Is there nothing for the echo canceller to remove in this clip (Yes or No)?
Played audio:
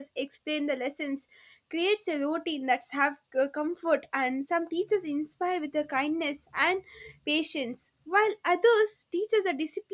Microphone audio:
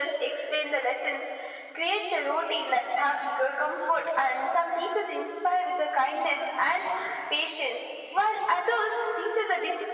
No